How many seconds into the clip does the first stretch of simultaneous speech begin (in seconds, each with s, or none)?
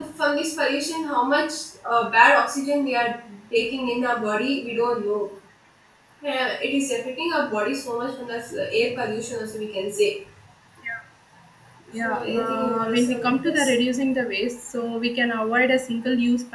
12.0 s